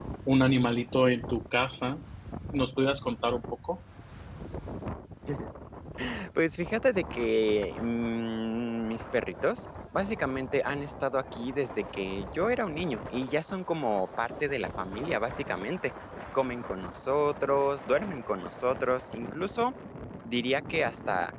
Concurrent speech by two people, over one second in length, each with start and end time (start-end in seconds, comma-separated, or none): none